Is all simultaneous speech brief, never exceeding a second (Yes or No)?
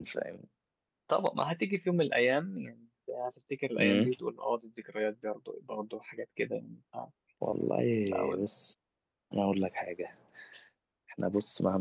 Yes